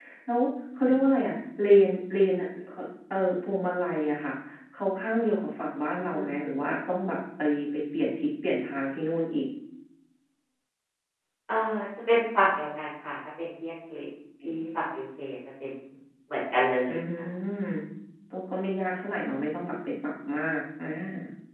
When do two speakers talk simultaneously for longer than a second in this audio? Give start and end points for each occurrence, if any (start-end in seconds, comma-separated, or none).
none